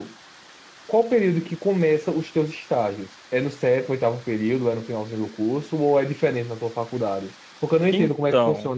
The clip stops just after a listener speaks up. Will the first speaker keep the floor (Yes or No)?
Yes